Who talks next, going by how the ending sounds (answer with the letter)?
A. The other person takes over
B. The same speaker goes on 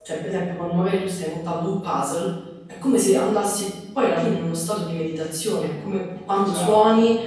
B